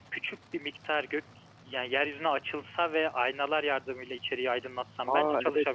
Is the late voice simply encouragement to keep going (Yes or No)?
No